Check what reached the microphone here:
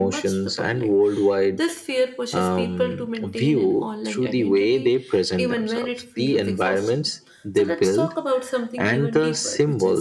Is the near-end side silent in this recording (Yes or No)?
No